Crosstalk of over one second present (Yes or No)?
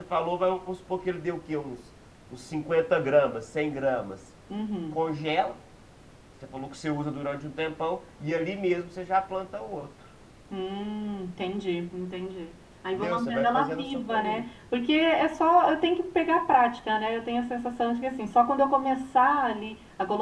Yes